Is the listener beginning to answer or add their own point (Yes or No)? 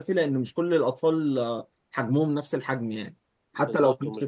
Yes